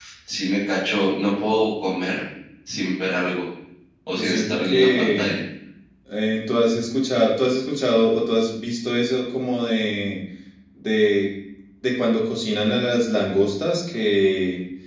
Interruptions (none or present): present